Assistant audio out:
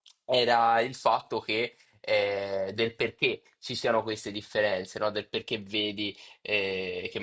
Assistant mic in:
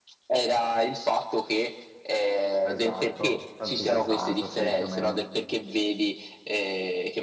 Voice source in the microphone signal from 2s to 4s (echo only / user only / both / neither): both